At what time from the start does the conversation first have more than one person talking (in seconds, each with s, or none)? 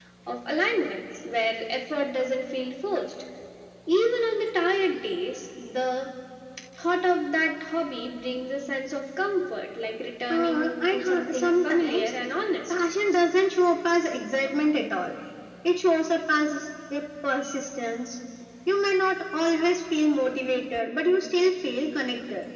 10.3 s